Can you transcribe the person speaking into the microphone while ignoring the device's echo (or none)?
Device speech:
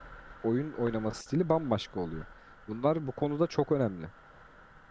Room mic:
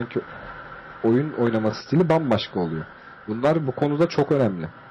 none